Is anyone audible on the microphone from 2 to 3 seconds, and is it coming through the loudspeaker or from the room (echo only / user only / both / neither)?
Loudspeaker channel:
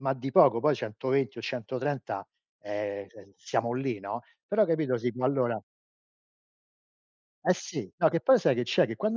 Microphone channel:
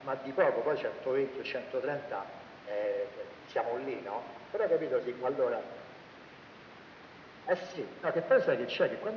echo only